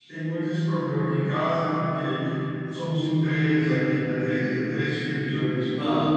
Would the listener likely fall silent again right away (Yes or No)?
Yes